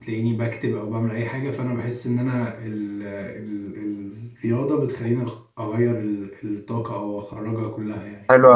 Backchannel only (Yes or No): No